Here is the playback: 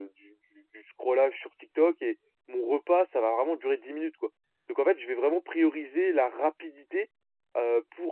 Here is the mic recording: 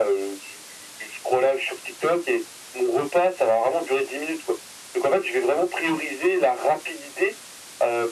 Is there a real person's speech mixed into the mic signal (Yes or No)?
No